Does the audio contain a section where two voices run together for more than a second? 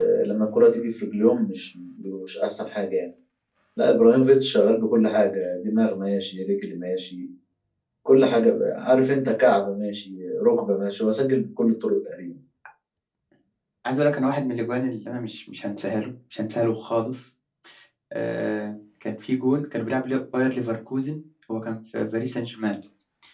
No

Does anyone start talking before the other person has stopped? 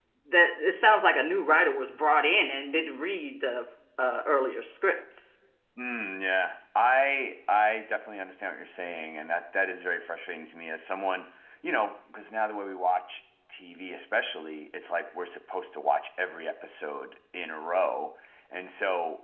No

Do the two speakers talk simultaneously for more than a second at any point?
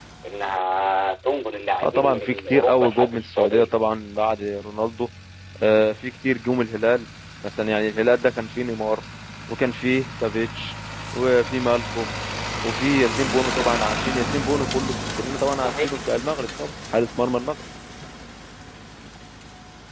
Yes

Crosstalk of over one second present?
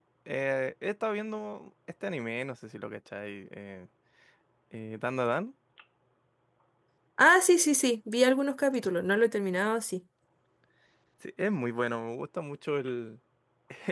No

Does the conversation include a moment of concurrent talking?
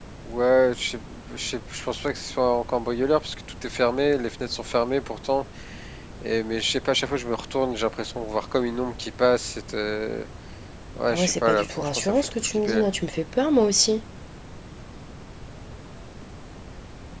Yes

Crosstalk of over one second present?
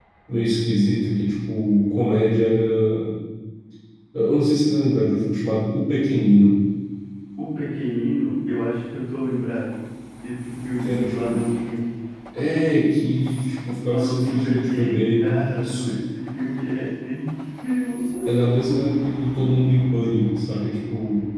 Yes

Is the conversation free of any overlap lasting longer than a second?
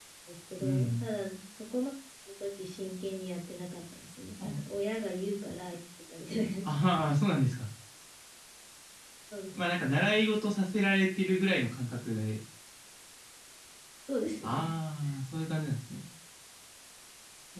Yes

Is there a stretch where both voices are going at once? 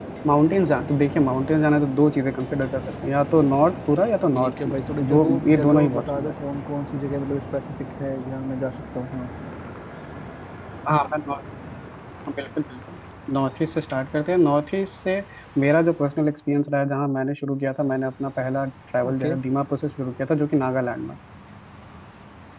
Yes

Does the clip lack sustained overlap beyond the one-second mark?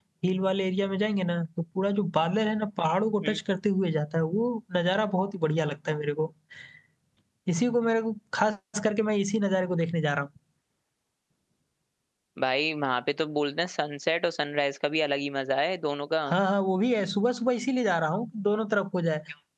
Yes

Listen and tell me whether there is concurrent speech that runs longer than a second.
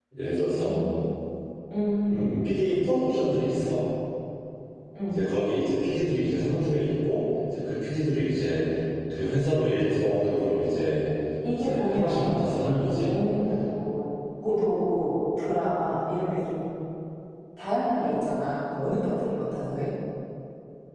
Yes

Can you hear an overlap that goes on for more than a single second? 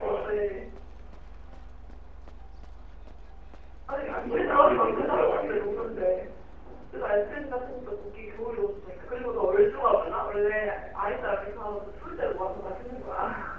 Yes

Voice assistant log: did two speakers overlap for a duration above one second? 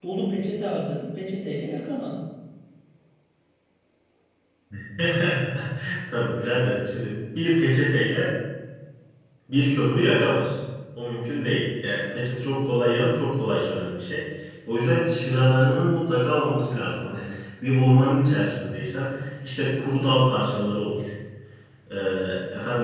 No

